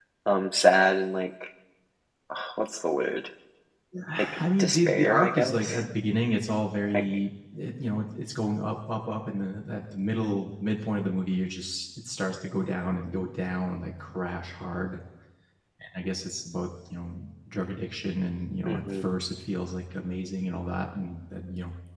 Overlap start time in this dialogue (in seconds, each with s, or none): 4.4 s